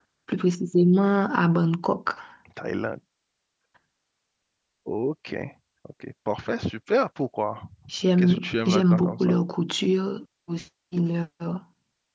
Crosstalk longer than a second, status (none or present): present